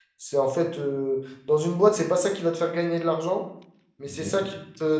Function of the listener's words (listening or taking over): listening